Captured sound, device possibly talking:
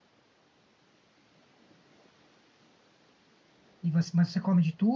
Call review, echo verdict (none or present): none